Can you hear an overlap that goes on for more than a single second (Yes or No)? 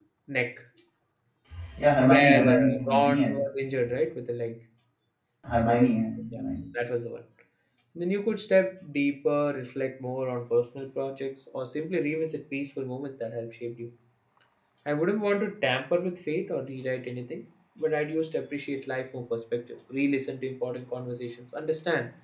Yes